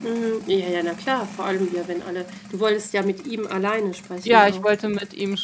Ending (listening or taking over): taking over